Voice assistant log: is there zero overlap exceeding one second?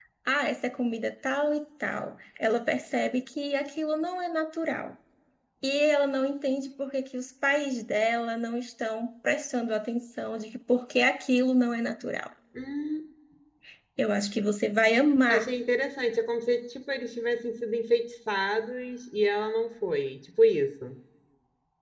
Yes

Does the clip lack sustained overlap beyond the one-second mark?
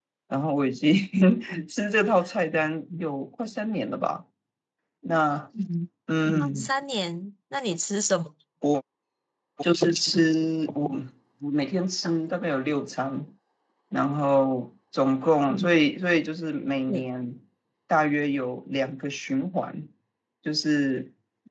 Yes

